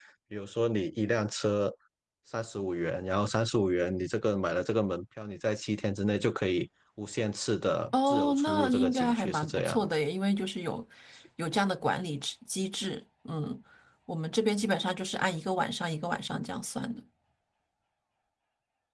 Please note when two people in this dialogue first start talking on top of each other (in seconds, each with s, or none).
7.9 s